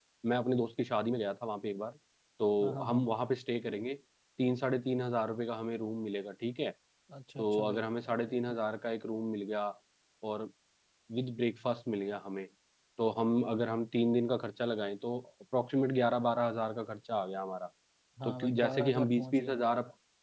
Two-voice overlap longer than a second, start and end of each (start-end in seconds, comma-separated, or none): 18.2-19.6